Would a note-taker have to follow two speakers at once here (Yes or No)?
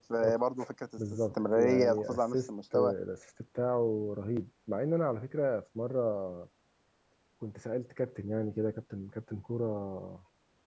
Yes